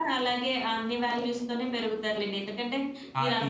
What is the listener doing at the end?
listening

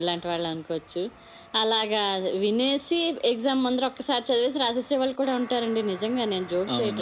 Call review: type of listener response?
taking over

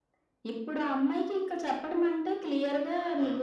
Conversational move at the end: listening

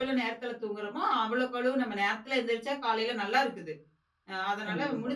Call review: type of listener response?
listening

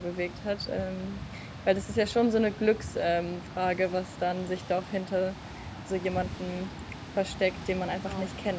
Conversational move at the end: taking over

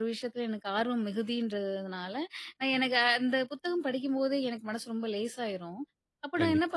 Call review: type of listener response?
listening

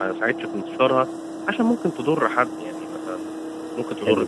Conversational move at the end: listening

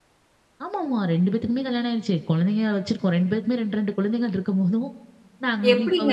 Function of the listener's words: taking over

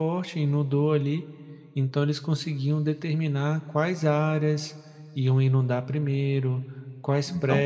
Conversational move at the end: listening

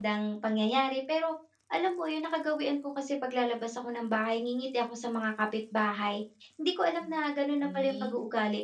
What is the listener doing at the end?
listening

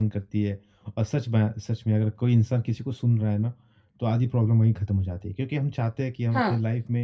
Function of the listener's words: listening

